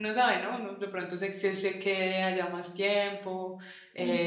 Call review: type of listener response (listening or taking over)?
taking over